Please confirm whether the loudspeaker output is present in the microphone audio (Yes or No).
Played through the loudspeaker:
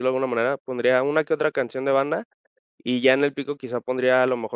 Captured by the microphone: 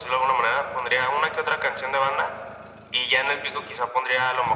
Yes